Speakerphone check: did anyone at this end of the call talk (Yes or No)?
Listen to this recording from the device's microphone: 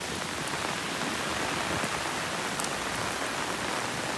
No